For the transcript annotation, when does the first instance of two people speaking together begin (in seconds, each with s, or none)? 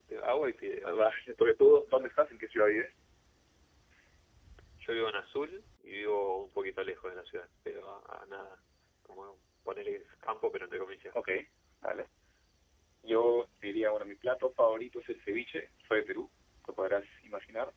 none